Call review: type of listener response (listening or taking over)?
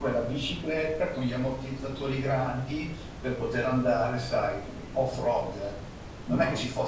listening